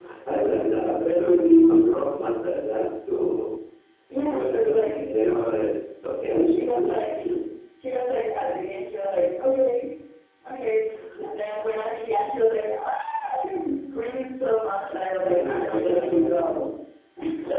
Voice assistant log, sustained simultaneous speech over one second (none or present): present